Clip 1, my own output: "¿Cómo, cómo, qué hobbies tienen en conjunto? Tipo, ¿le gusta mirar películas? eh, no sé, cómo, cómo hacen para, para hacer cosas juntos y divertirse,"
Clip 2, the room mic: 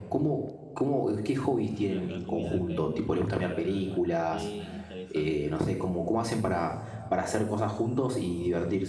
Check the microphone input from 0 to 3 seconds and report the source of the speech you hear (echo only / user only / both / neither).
both